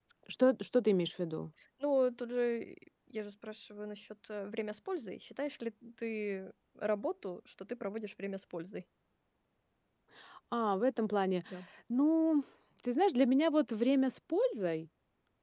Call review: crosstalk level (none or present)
none